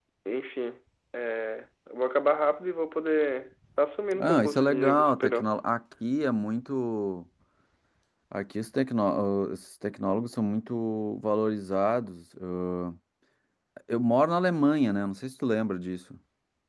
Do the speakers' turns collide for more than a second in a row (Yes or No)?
Yes